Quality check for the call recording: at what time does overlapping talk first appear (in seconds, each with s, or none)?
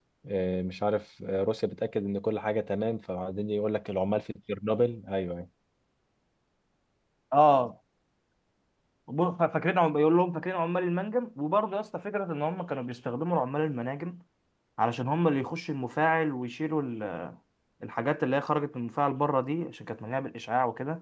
none